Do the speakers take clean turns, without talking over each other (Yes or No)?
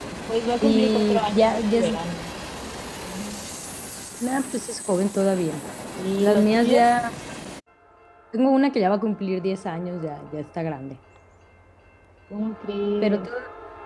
No